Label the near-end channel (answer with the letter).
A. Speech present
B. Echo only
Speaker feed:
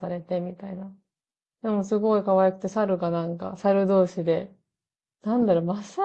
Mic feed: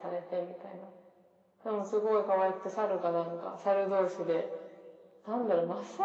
B